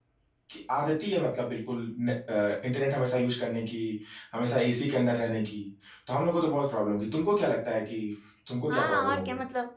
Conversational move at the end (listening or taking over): taking over